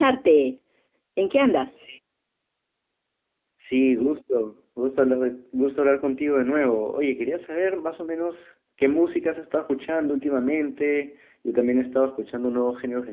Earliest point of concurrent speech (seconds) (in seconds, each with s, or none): none